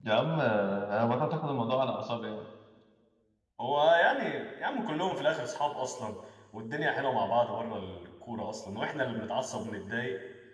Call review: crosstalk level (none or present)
none